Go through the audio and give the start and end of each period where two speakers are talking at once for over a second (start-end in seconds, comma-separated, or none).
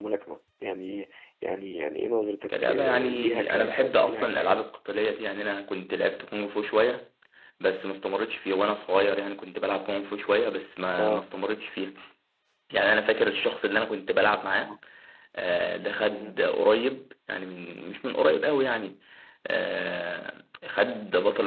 2.5-4.6